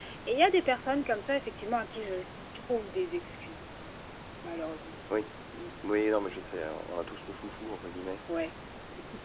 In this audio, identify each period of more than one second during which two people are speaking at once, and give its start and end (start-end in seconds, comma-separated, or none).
none